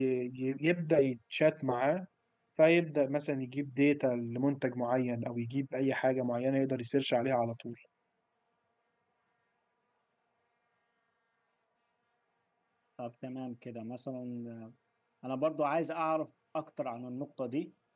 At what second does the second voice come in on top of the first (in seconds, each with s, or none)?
none